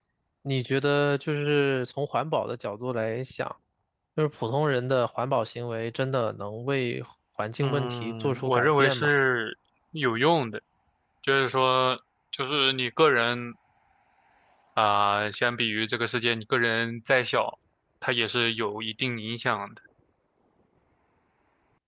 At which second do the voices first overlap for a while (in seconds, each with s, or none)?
7.6 s